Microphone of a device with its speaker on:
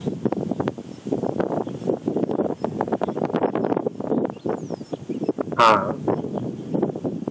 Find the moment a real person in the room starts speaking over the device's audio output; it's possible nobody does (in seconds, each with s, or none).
5.6 s